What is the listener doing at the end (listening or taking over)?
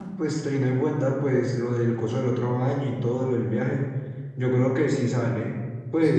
taking over